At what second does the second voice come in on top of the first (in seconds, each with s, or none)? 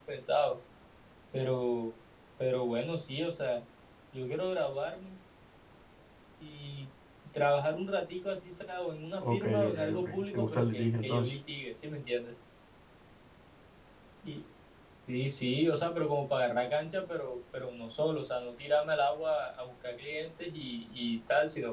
9.2 s